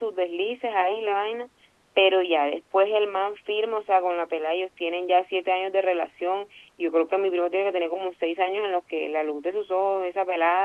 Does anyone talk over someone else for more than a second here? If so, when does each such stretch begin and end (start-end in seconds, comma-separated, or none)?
none